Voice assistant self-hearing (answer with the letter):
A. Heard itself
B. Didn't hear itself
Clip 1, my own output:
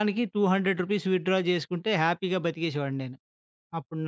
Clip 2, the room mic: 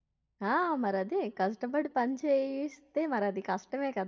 B